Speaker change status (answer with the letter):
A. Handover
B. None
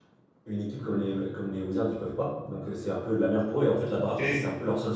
B